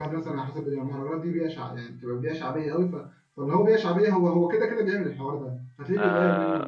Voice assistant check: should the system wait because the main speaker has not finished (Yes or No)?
No